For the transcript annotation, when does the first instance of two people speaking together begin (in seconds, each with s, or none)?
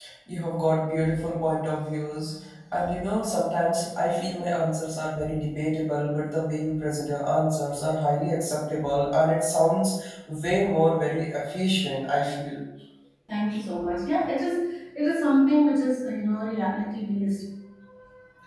none